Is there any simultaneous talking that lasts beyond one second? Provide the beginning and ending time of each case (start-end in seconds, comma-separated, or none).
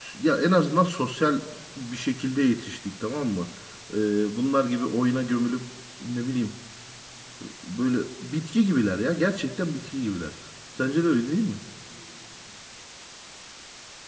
none